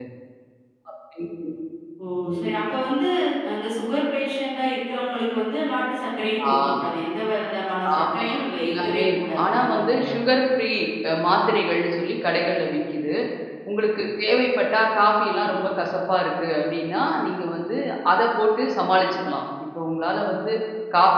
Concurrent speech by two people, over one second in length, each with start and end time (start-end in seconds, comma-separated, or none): 8.6-10.1